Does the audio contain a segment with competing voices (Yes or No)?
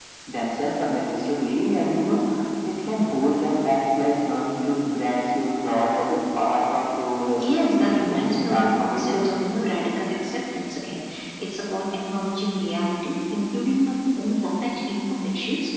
Yes